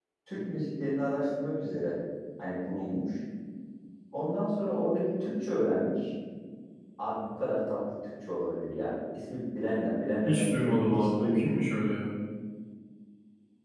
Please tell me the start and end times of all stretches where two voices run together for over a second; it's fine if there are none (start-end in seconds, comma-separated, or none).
10.3-11.6